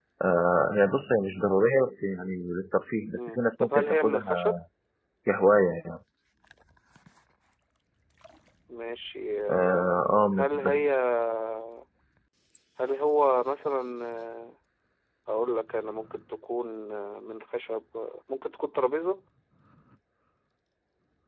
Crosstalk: present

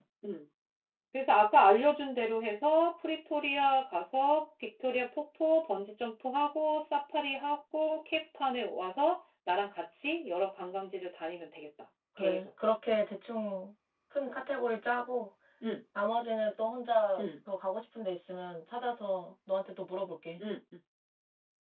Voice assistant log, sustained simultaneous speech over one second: none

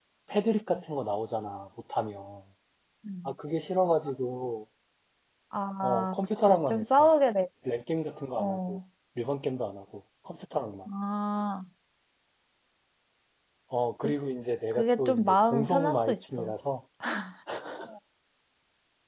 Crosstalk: present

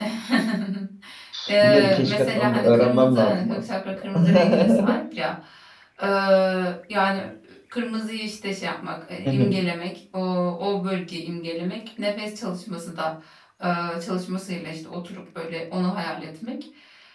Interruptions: present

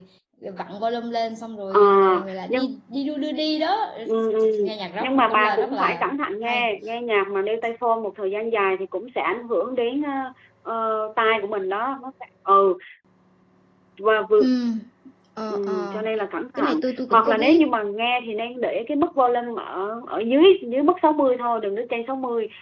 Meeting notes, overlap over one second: present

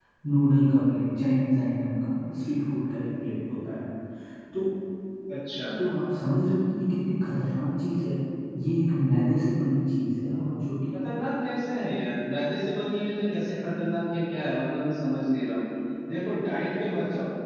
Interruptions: none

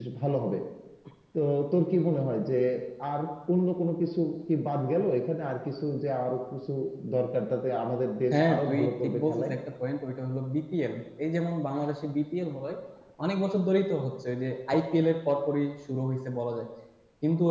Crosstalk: present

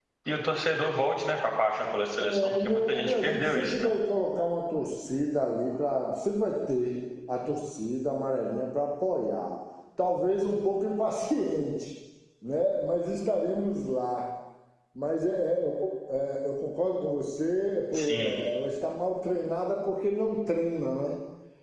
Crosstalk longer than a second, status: present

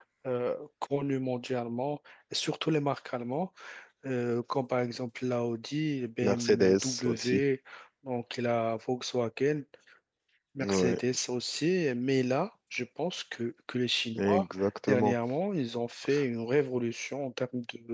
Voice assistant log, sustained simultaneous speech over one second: present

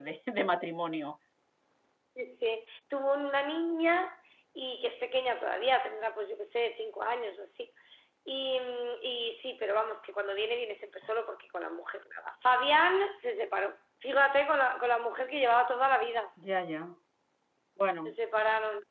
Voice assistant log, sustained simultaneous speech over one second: none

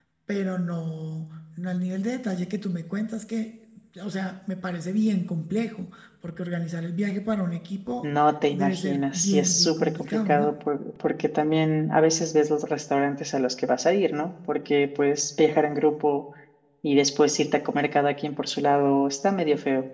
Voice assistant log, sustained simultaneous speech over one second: present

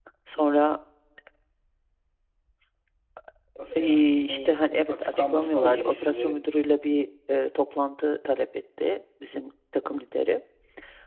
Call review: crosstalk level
present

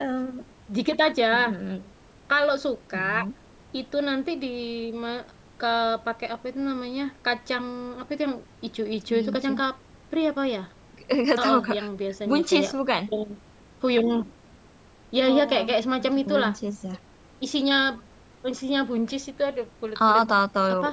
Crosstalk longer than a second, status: present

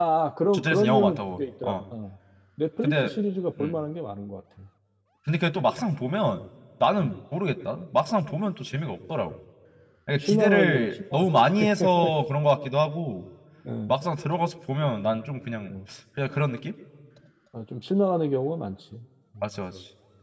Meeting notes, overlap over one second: present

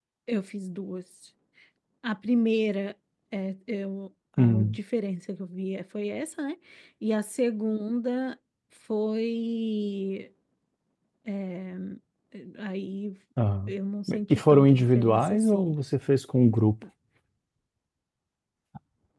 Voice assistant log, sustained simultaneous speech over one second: present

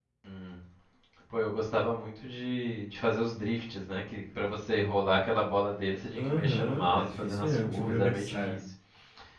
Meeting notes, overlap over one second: present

